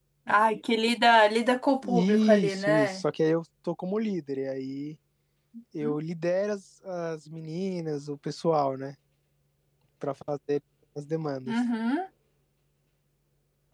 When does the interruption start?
1.8 s

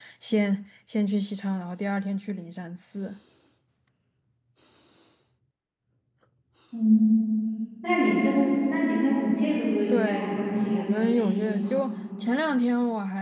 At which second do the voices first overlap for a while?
9.9 s

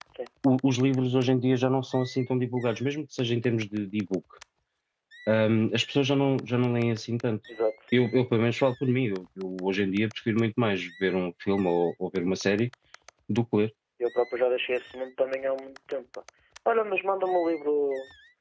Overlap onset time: none

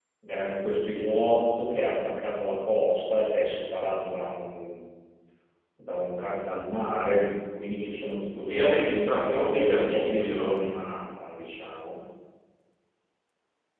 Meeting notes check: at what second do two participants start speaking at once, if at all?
8.5 s

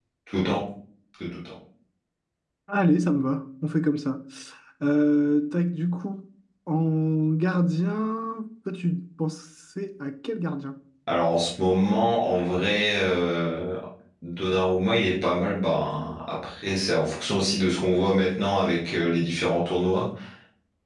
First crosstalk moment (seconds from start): none

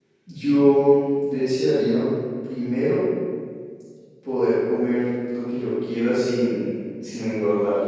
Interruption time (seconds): none

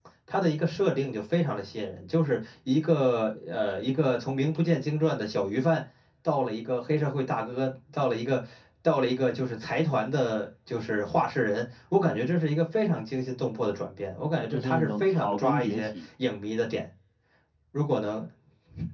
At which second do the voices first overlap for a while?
14.5 s

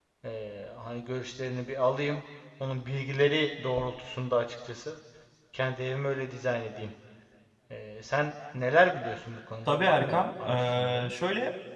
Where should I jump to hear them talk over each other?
9.7 s

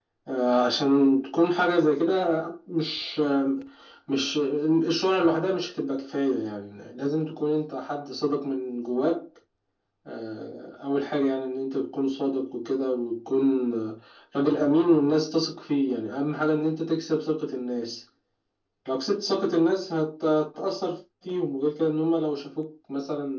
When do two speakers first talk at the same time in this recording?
none

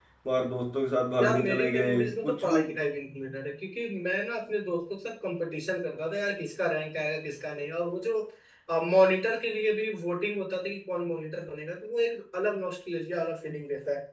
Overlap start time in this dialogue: 1.2 s

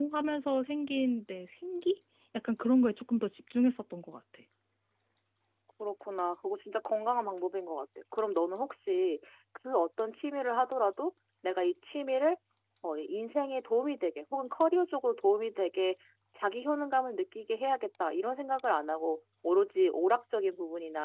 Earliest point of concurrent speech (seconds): none

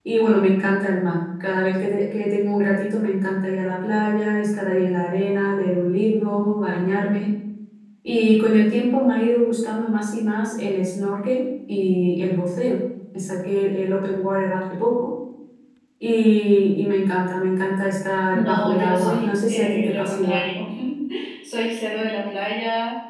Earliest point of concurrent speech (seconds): 18.3 s

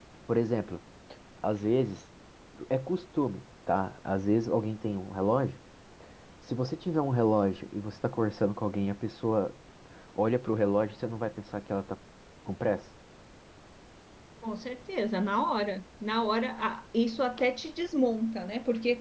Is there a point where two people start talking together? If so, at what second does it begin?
none

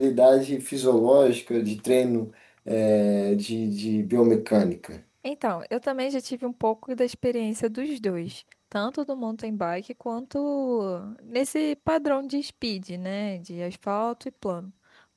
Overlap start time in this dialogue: none

